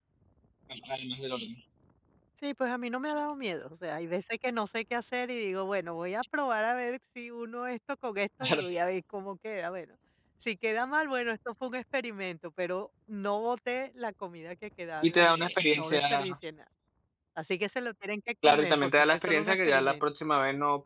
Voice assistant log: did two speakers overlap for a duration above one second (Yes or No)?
Yes